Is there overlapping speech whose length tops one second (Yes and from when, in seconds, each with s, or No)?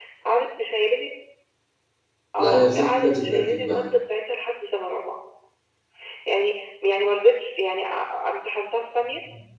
Yes, from 2.4 s